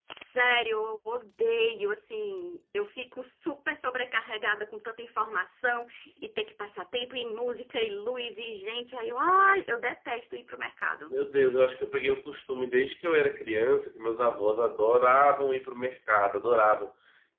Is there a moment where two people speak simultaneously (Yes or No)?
No